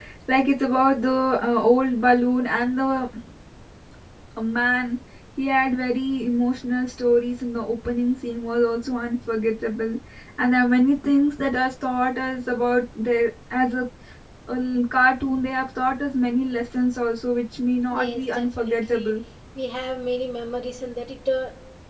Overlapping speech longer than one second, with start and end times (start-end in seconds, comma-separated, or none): 17.9-19.1